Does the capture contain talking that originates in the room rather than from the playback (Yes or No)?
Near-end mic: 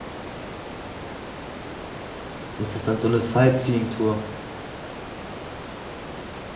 Yes